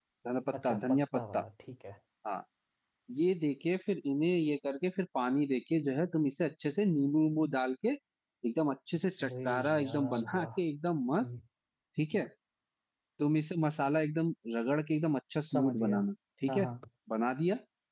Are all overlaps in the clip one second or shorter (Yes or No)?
No